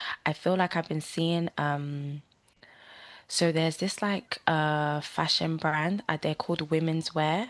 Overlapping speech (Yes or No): No